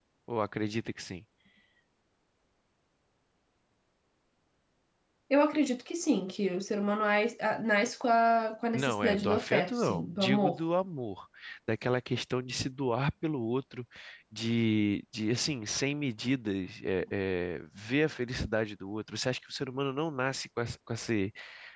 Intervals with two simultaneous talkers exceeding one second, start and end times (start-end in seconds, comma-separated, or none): 8.7-10.6